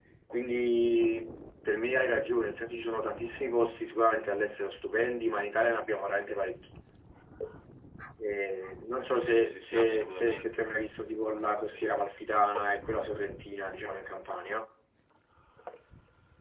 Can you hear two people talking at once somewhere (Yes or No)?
Yes